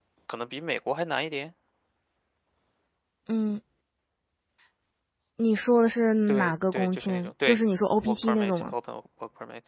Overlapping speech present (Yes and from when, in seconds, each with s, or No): Yes, from 6.3 s